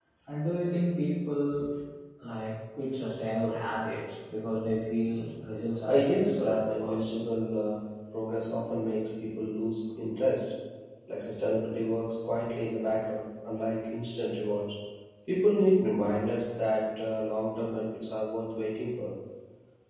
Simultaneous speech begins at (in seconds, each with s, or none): 5.9 s